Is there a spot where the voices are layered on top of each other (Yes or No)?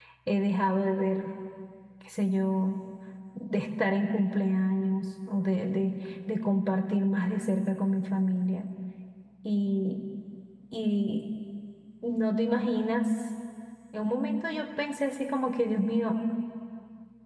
No